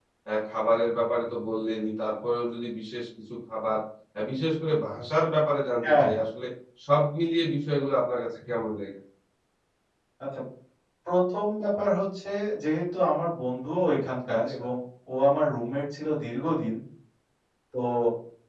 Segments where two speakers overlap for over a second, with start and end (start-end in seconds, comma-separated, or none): none